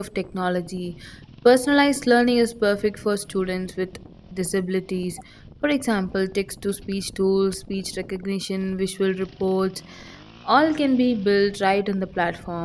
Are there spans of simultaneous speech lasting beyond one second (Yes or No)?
No